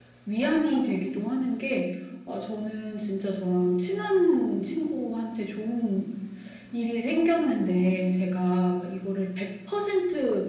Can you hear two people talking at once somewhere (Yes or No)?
No